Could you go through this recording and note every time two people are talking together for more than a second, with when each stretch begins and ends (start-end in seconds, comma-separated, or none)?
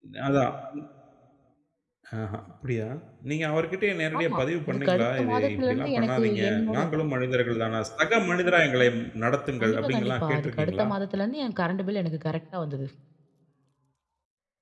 4.2-6.8, 9.6-10.9